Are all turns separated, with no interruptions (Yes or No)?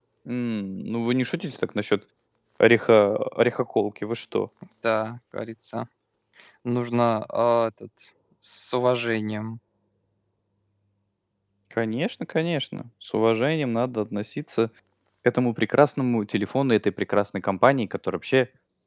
Yes